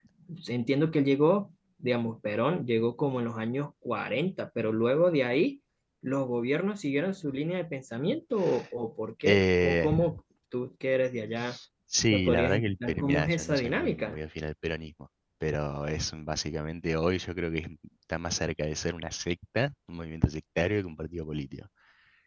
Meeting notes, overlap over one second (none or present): present